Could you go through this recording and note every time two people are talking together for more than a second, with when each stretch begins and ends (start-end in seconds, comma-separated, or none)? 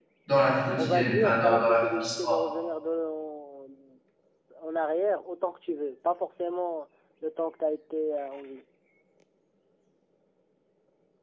0.8-2.4